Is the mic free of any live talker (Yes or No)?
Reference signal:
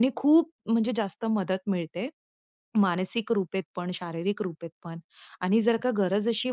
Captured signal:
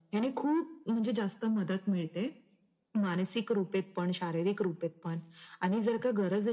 Yes